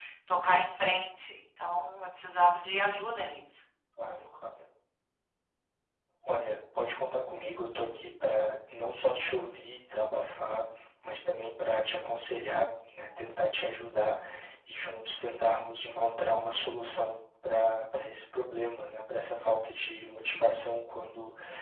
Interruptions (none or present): none